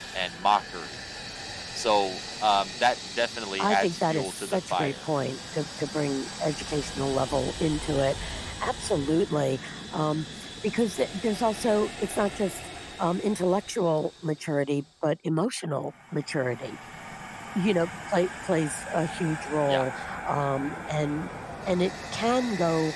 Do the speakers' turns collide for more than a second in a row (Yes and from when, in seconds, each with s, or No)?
Yes, from 3.6 s